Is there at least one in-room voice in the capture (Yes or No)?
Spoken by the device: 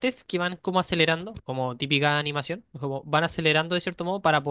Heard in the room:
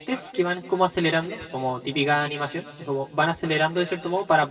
No